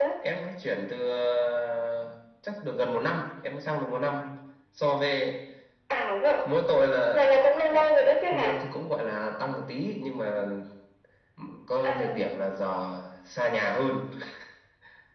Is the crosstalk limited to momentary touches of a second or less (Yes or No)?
Yes